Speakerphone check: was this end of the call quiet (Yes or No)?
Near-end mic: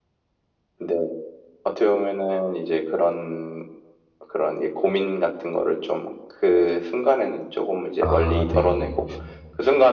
No